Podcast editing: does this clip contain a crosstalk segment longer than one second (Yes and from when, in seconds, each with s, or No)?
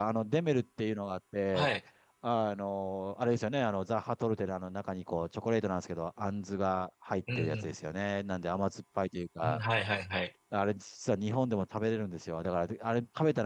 No